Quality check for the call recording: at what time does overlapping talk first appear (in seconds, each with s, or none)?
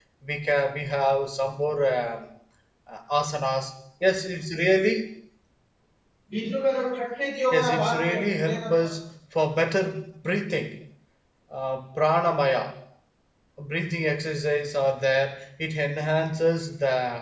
7.5 s